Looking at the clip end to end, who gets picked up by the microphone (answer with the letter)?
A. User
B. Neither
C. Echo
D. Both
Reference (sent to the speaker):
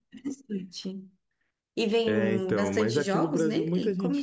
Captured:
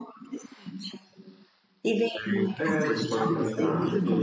D